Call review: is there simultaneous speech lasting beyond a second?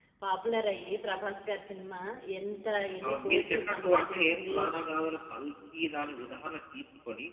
Yes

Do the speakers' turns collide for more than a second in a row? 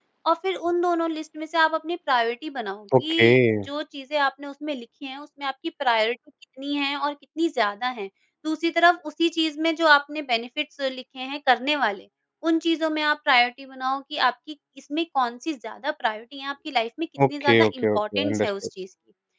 Yes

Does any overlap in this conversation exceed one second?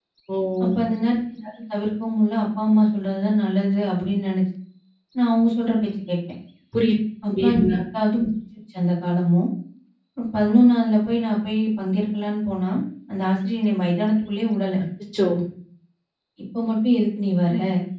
No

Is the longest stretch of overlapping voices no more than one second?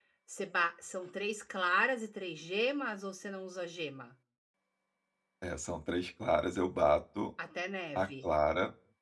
Yes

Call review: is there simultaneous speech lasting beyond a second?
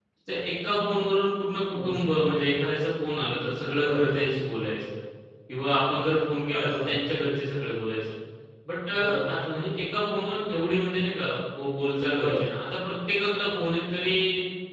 No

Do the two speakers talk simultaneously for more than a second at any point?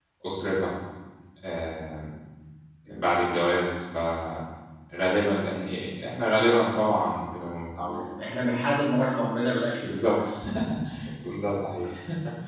No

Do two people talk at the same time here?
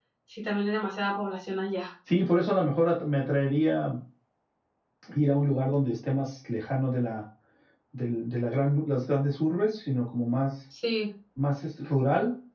No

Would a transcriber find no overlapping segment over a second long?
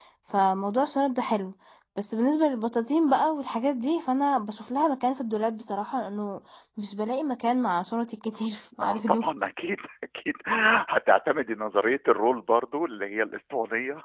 Yes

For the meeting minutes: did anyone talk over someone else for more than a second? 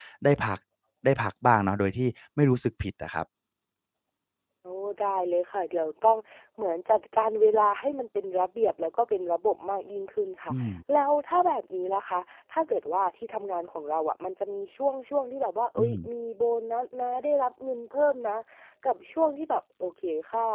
No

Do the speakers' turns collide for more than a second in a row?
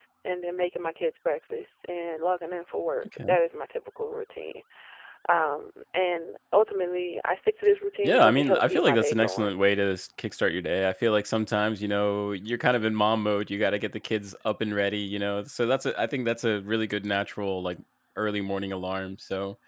Yes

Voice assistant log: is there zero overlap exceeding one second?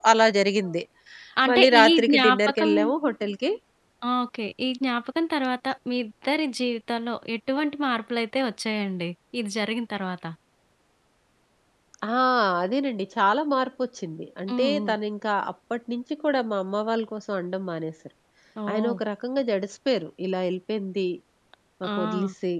No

